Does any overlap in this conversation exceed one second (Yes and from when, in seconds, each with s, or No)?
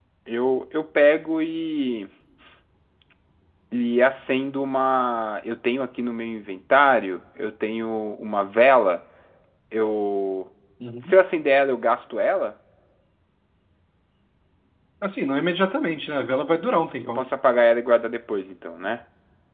No